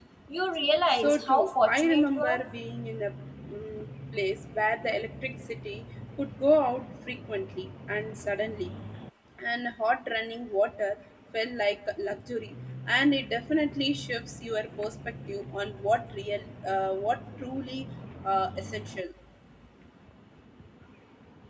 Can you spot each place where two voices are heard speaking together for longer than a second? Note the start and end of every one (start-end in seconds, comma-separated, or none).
1.0-2.4